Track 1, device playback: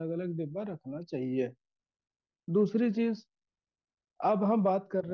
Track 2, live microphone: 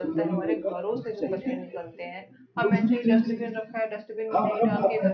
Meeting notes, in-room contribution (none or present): present